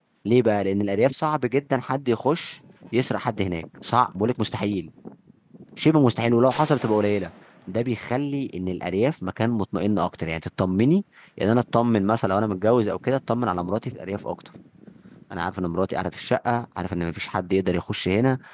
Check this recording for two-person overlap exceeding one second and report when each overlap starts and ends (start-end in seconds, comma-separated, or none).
none